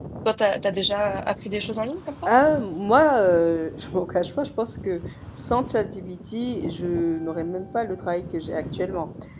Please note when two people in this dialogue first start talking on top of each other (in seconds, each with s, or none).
none